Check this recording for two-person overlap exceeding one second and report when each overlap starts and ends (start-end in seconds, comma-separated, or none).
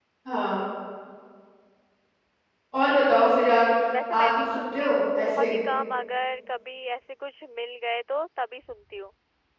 4.1-5.5